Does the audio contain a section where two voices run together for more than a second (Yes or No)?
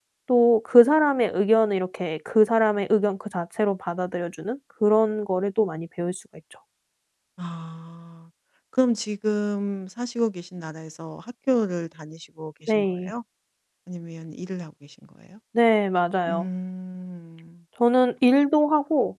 No